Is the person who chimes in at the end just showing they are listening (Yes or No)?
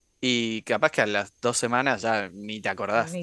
No